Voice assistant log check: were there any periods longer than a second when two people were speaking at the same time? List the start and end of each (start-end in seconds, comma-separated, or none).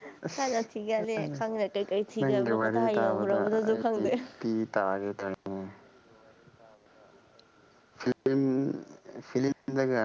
2.2-4.1